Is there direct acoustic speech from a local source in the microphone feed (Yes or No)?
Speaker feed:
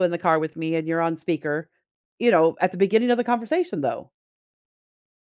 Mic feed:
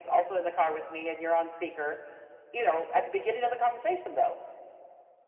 No